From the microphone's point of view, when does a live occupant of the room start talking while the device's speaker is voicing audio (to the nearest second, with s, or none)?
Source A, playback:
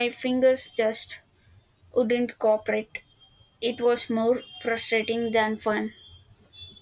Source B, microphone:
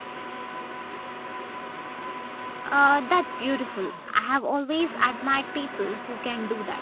3 s